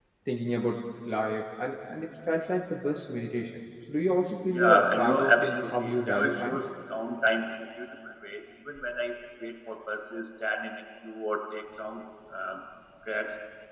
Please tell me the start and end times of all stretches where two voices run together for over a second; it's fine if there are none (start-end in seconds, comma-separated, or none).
4.5-6.6